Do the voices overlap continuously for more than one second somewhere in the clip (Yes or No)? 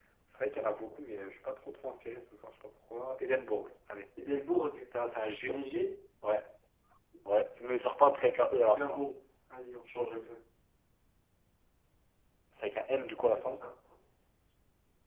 No